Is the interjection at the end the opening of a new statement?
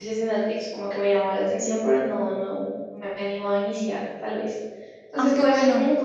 No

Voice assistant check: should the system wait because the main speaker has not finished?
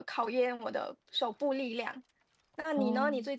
Yes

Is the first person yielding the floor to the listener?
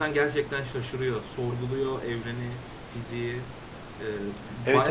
Yes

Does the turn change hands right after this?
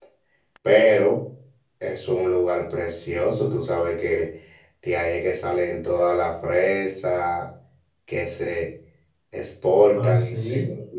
No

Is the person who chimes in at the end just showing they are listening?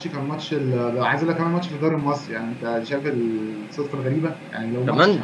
Yes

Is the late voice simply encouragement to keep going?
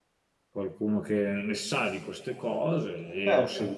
Yes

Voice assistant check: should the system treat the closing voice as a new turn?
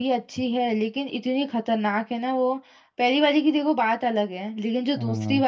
No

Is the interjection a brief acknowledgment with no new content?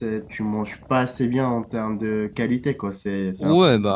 No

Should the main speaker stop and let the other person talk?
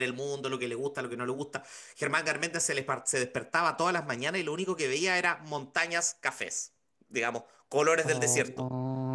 Yes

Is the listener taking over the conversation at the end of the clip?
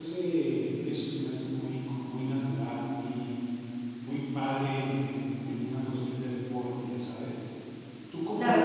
Yes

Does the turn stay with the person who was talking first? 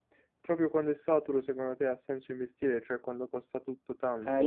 No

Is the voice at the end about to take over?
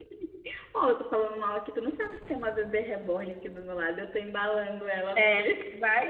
Yes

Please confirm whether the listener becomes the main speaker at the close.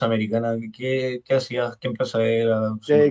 Yes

